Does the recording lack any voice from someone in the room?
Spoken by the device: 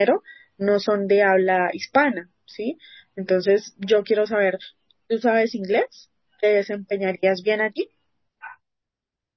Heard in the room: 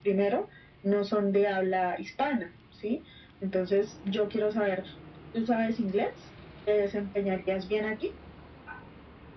Yes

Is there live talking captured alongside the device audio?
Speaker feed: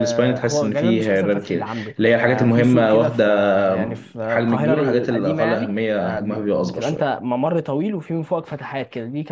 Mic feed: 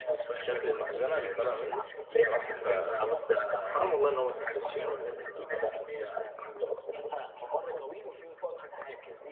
Yes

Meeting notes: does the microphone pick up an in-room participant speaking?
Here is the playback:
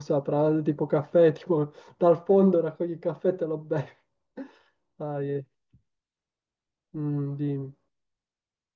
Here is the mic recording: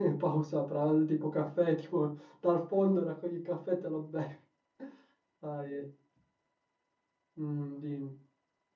No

